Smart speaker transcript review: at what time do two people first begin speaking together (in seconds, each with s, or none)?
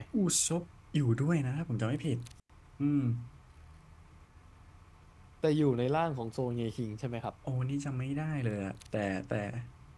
none